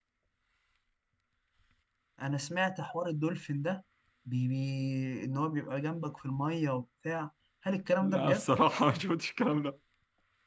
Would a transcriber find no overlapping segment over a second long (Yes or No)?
Yes